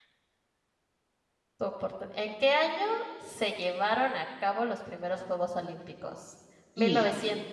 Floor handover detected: No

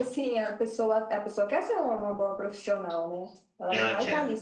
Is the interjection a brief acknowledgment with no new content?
Yes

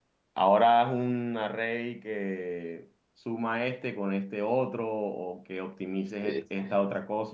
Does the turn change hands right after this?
No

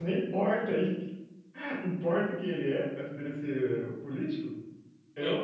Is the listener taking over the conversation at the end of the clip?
No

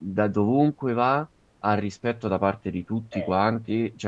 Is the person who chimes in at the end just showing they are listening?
Yes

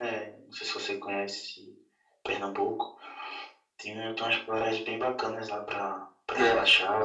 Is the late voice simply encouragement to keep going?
No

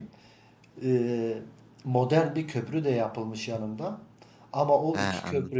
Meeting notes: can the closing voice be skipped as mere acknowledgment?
Yes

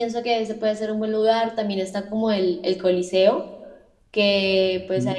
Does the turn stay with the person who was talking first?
Yes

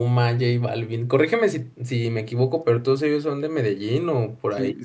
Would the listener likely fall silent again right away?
No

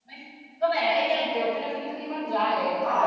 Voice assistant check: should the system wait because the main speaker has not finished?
No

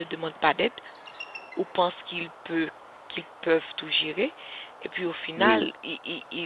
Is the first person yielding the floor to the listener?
No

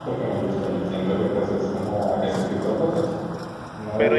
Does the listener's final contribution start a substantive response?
Yes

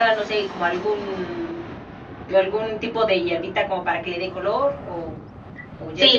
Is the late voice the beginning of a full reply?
Yes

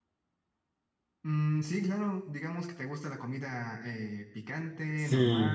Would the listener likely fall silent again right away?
No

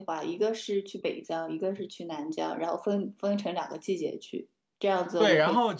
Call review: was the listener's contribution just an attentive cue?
No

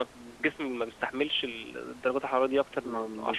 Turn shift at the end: Yes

